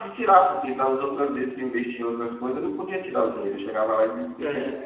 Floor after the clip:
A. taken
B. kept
B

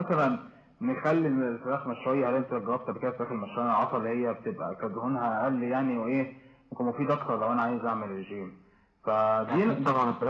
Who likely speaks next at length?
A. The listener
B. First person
A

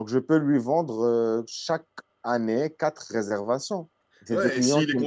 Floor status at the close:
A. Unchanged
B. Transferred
B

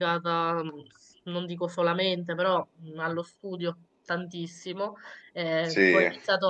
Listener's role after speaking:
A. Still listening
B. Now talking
A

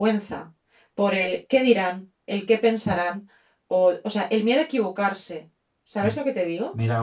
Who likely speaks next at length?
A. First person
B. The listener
B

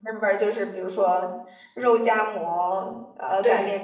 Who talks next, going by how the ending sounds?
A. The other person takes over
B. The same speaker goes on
B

